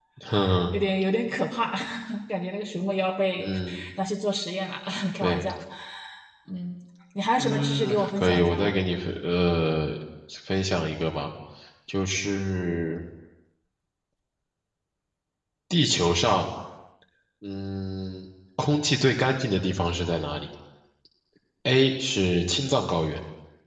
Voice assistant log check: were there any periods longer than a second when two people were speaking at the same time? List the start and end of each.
7.4-8.7

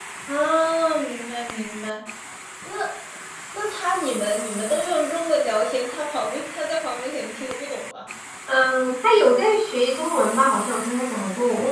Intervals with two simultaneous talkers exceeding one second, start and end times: none

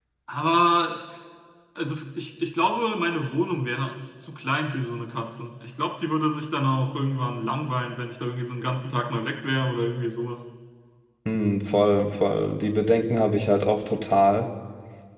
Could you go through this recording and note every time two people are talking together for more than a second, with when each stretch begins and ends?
none

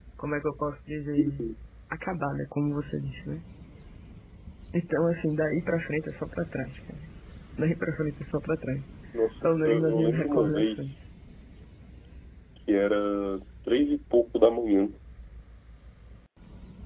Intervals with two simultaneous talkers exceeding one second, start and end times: 9.4-10.9

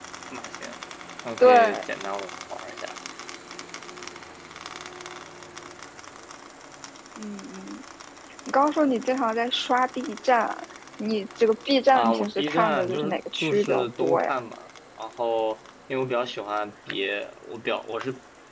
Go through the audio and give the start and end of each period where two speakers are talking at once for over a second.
11.9-14.3

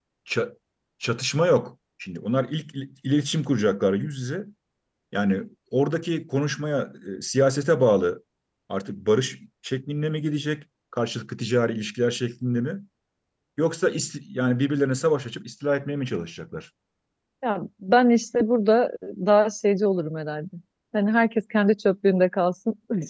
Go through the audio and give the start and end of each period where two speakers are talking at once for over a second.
none

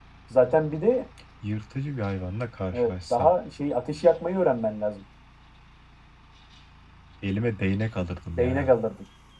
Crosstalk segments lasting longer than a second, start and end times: none

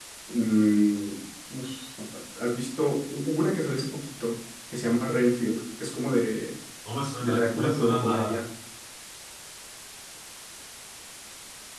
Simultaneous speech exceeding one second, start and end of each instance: 7.2-8.4

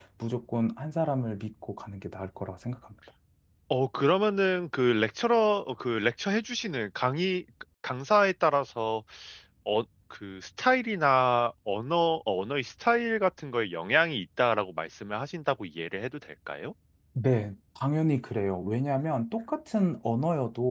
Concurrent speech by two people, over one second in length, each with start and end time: none

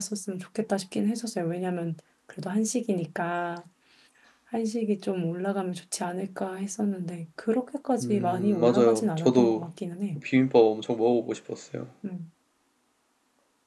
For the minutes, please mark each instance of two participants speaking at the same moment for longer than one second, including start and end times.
8.0-9.7

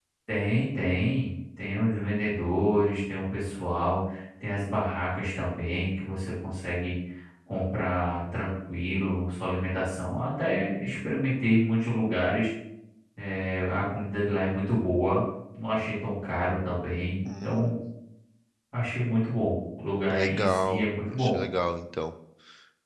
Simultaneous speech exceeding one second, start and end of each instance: 20.1-21.4

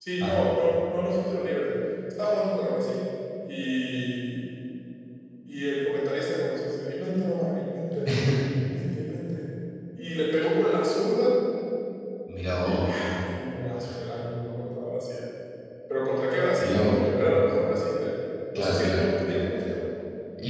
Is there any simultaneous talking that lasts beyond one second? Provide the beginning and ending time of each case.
none

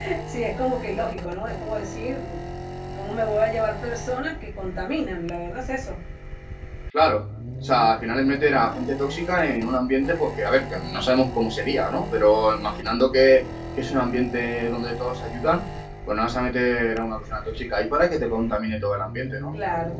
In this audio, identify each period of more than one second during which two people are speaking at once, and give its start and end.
none

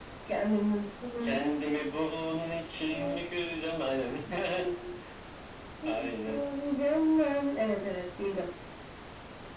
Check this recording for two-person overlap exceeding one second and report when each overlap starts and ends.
none

